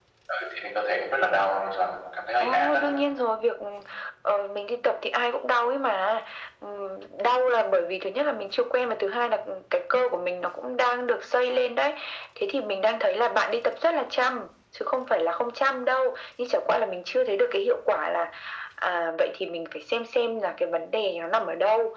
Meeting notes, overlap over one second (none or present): none